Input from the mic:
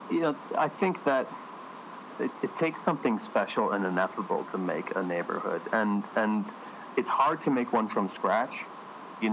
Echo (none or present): present